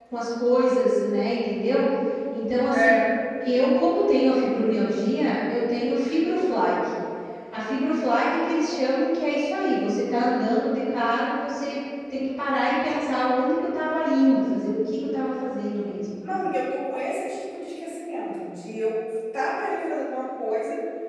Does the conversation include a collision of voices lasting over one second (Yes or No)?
No